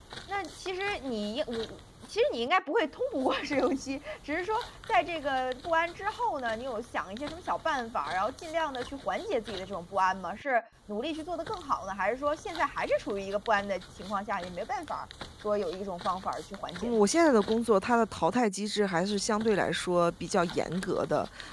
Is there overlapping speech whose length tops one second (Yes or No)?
No